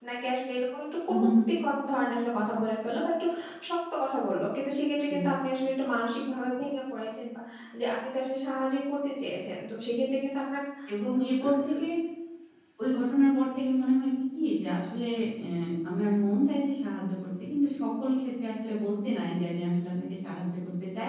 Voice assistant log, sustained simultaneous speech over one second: none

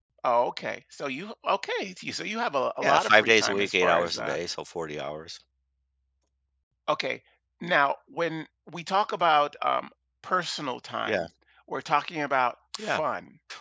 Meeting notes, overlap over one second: present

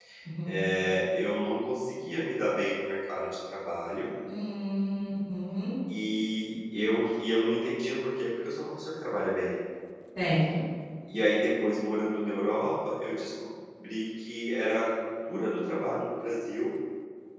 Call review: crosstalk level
none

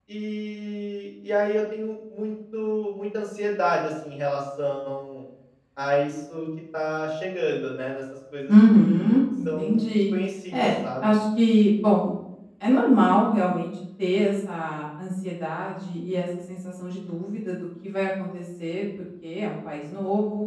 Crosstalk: present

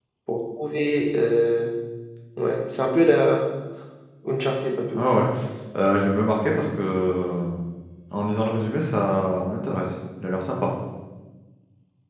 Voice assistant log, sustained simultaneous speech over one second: none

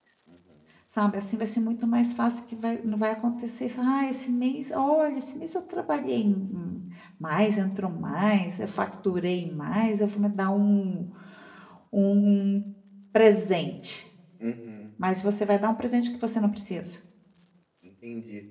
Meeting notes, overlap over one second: none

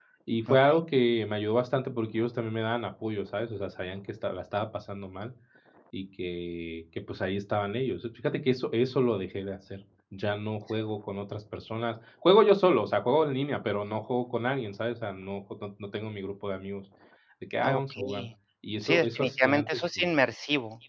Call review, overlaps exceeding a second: present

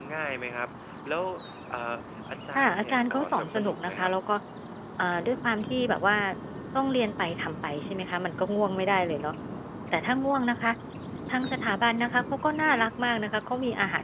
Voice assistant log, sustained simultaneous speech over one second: present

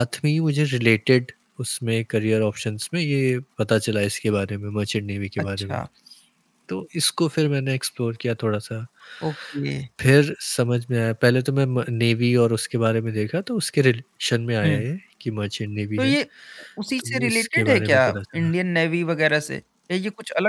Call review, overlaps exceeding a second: present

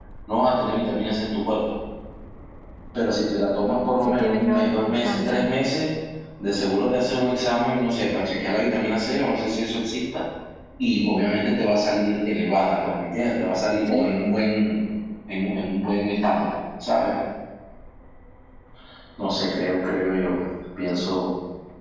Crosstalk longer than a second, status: present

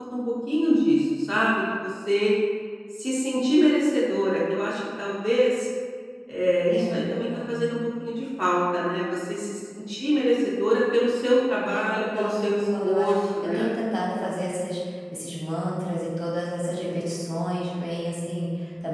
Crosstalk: present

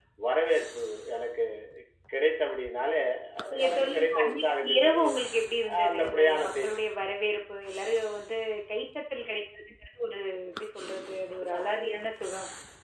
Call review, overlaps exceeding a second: present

